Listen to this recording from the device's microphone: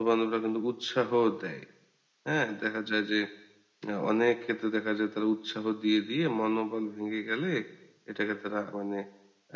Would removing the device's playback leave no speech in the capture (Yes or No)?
No